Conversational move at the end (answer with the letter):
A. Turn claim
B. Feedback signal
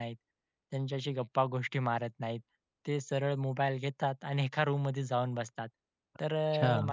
B